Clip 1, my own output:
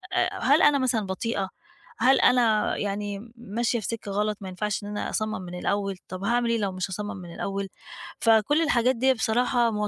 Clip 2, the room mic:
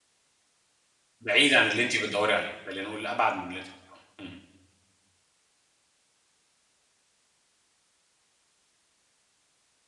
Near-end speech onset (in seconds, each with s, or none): 1.2 s